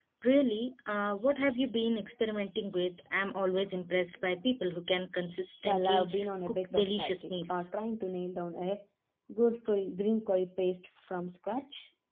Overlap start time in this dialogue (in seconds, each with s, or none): 5.6 s